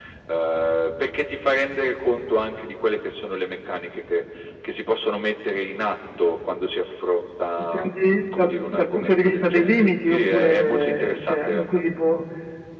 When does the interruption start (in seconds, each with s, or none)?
7.6 s